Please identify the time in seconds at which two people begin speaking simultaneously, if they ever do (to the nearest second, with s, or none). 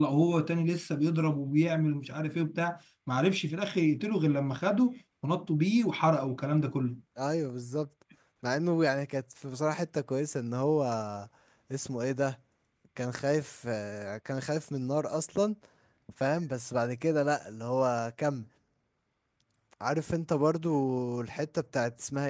none